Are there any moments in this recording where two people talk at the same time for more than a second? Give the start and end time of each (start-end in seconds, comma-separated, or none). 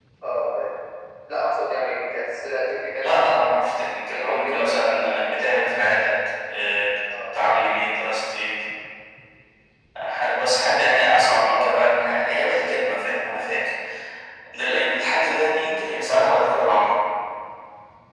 3.0-5.2